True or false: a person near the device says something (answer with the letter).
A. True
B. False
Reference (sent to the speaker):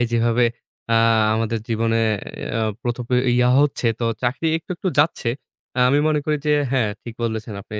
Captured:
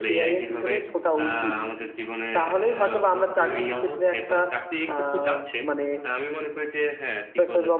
A